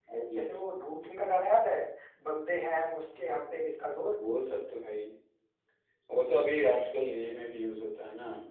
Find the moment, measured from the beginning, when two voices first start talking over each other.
none

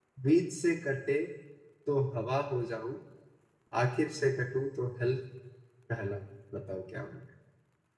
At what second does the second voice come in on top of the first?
none

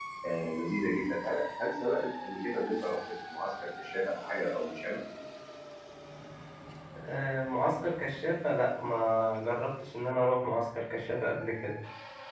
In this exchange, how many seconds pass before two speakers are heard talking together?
none

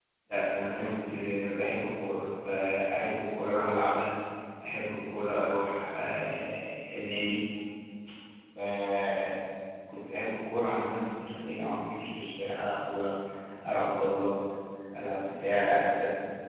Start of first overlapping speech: none

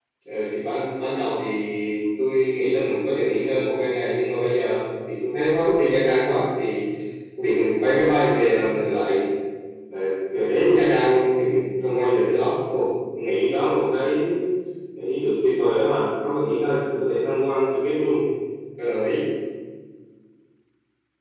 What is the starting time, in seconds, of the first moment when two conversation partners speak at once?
none

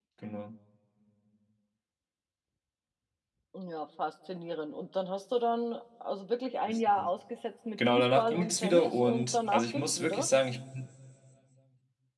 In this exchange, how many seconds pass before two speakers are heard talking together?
7.8 s

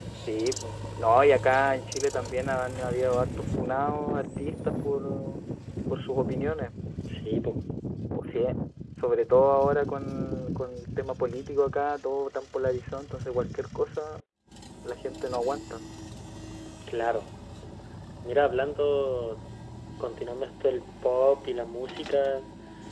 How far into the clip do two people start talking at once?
none

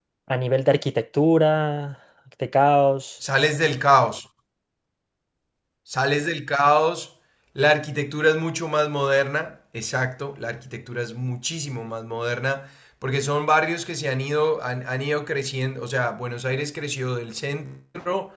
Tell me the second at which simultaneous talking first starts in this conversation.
none

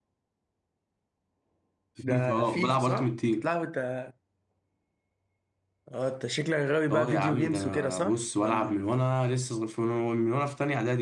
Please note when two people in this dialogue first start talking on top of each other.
2.0 s

